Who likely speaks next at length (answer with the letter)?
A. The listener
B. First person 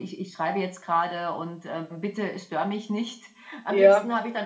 B